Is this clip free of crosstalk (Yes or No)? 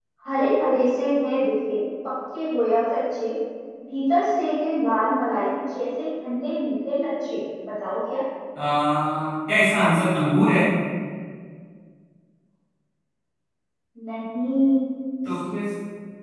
Yes